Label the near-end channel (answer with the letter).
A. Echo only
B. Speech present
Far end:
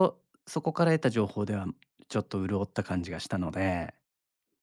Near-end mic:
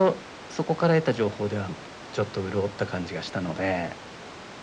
A